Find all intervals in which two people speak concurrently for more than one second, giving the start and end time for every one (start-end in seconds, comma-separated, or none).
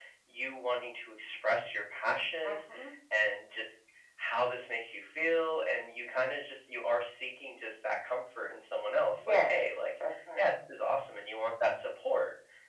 9.2-10.5